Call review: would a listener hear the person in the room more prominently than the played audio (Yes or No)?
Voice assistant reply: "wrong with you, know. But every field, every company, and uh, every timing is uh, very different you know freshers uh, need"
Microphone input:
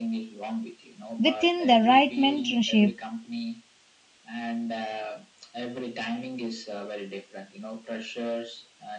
Yes